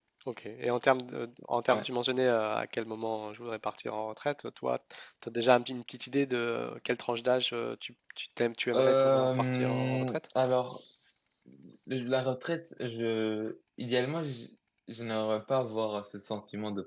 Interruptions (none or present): present